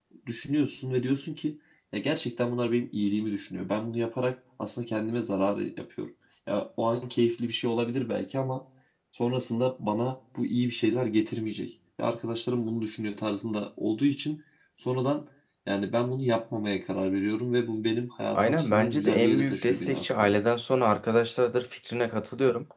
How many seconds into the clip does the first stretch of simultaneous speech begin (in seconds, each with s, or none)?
18.3 s